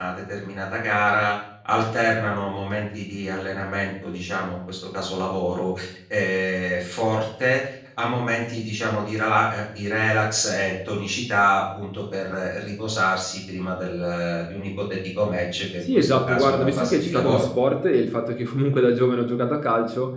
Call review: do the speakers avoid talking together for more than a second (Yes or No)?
No